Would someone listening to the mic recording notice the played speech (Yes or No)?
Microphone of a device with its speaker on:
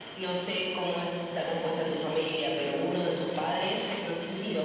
Yes